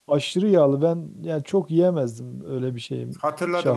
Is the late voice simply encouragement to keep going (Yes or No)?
No